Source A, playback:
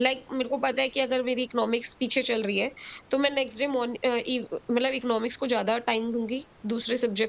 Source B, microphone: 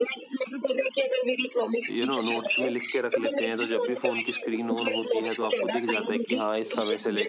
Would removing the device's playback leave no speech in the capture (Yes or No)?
No